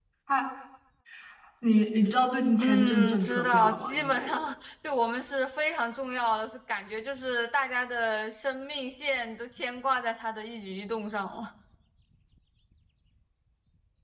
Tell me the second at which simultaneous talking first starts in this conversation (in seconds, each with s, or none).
2.6 s